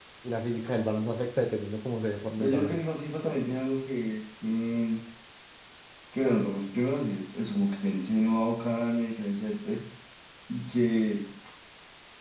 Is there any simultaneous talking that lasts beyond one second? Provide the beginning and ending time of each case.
none

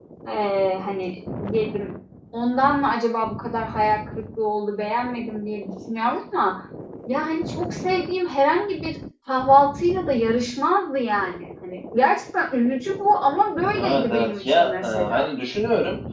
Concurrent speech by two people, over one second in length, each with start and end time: 13.8-15.2

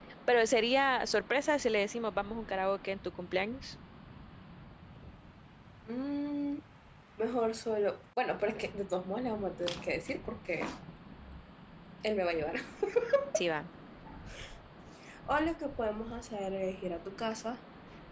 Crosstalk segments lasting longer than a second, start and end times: none

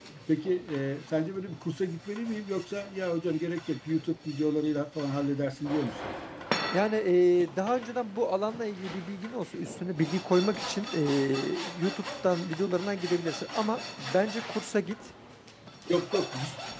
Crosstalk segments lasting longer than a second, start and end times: none

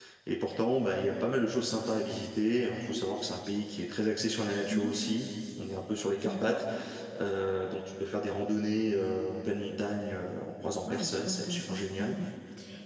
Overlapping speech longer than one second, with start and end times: 10.8-12.1

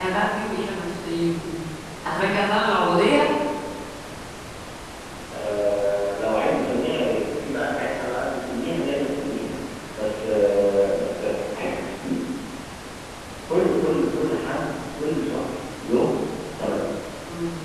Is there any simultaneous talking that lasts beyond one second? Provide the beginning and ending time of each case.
none

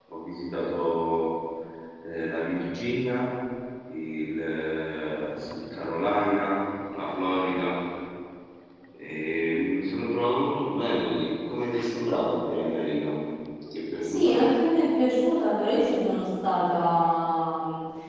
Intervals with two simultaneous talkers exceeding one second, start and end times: none

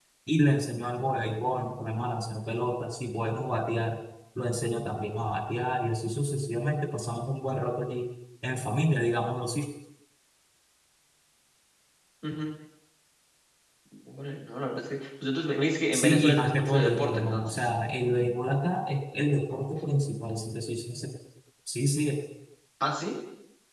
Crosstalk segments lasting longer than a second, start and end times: 15.9-17.6

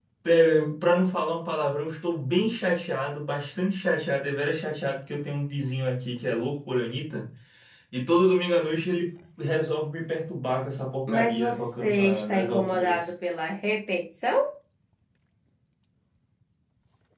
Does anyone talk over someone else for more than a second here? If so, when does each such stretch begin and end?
11.1-13.1

